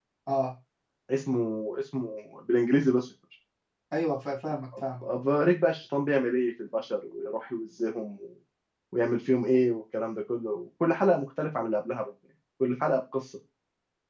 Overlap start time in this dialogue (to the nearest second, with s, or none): none